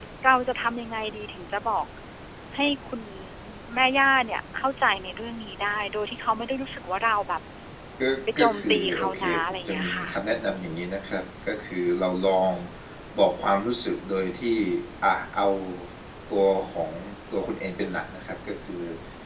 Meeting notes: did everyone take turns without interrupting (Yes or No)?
No